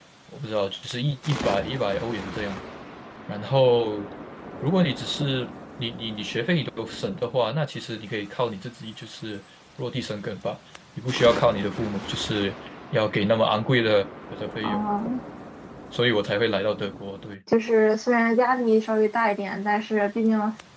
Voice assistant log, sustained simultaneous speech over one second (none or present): none